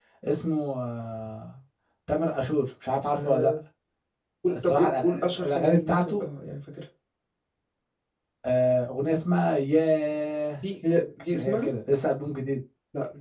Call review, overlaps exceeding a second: present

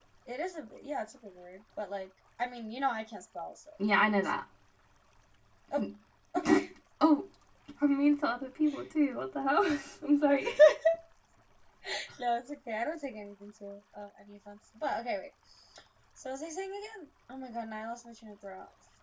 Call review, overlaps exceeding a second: none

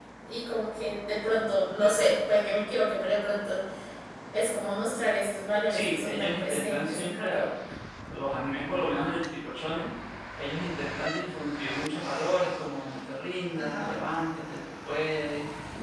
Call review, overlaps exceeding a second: present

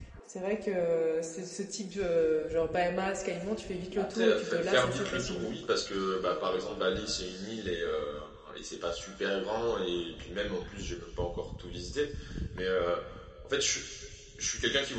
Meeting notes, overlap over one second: present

